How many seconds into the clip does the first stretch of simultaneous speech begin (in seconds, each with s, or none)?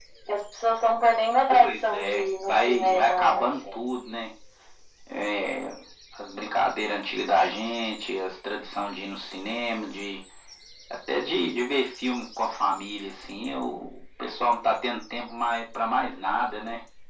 1.5 s